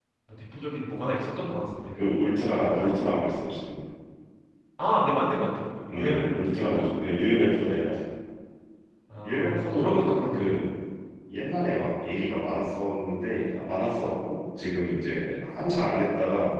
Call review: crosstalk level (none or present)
present